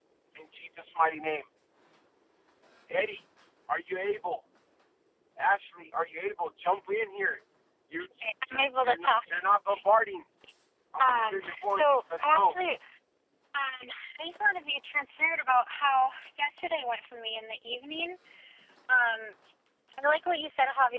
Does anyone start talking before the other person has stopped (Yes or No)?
Yes